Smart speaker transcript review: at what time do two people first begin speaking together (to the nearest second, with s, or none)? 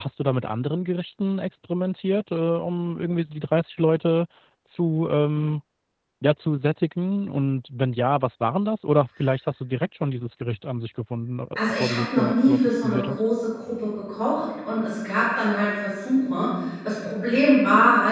12 s